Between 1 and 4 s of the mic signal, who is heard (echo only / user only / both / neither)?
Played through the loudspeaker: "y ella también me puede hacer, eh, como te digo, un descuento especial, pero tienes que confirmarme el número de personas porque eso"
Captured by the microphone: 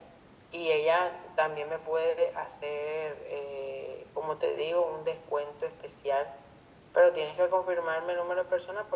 echo only